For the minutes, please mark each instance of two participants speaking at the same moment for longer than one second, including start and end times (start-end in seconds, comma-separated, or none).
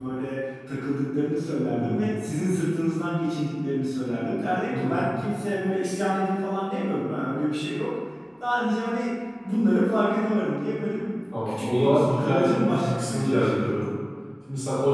11.5-13.8